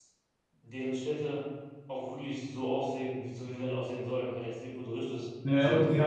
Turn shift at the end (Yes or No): Yes